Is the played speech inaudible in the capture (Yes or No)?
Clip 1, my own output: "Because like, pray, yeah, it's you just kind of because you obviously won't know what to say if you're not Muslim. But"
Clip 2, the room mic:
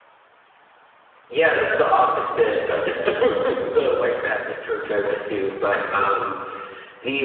Yes